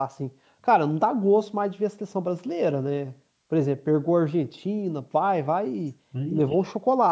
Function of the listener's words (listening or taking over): listening